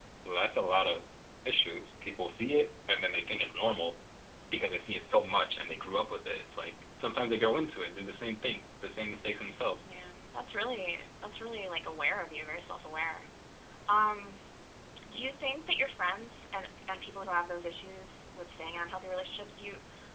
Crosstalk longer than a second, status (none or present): none